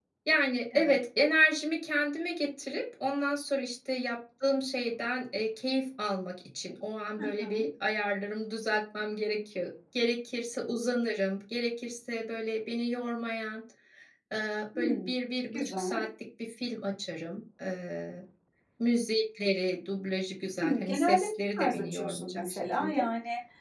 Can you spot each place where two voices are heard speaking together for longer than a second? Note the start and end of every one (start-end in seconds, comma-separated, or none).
20.6-23.1